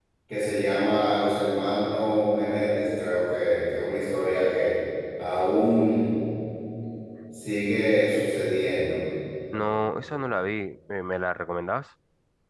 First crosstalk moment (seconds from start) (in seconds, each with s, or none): none